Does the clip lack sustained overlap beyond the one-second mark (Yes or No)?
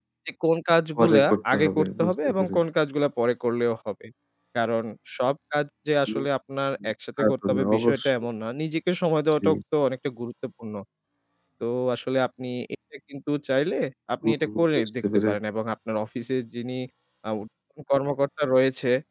No